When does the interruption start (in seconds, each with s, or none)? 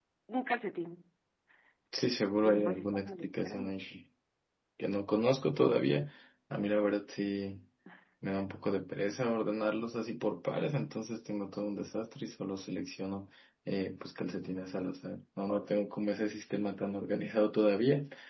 2.4 s